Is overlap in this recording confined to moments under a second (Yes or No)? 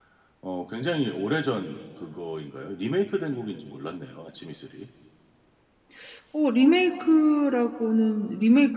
Yes